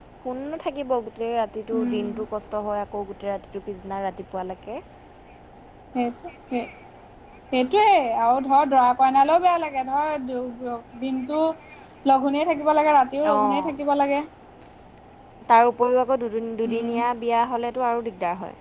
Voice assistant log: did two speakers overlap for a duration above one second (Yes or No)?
No